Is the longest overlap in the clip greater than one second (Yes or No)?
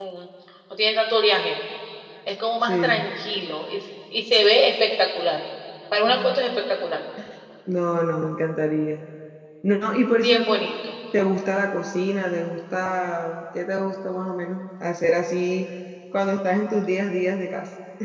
No